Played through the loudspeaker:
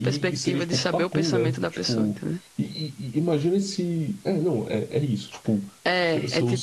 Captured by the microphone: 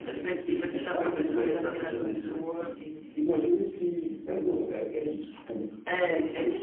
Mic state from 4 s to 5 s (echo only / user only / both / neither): echo only